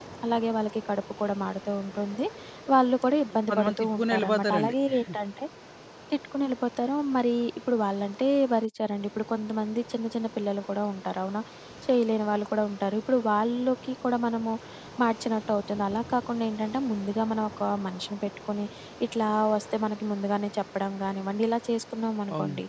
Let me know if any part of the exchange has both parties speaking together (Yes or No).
Yes